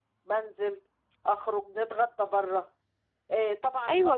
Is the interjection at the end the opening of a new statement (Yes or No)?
Yes